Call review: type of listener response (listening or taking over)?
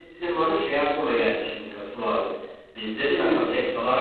listening